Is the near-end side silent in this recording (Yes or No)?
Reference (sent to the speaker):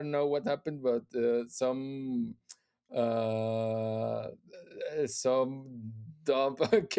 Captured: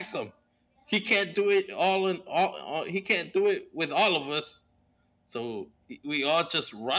No